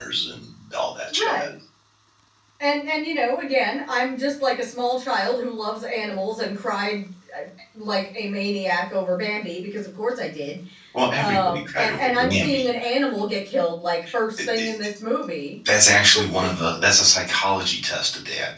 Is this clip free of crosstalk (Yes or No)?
No